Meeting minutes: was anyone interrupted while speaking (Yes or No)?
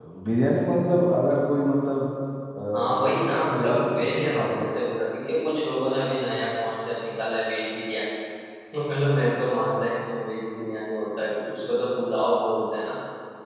Yes